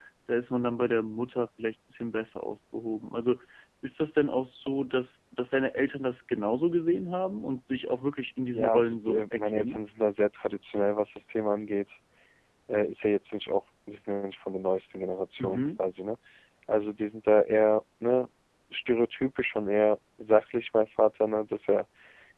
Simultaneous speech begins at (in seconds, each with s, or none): 8.5 s